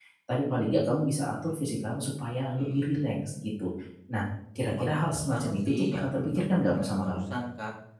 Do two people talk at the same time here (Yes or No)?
Yes